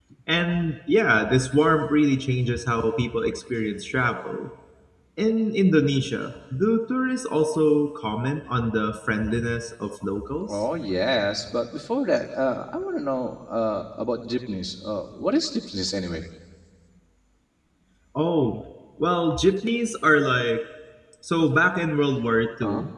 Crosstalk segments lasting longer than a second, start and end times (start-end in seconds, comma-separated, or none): none